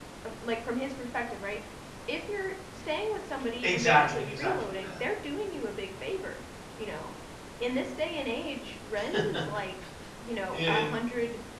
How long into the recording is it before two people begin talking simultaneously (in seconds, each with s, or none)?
3.6 s